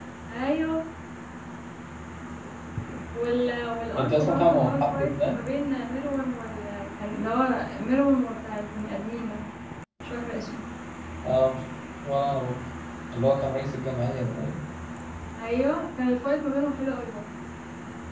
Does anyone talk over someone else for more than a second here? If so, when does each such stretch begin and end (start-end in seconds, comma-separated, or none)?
4.0-5.3